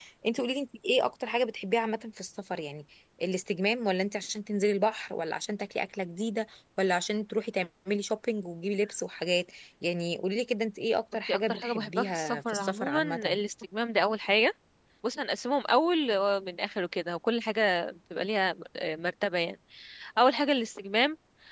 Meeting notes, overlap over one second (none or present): present